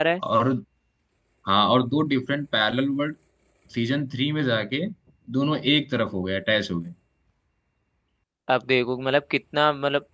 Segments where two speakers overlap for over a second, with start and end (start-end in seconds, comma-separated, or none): none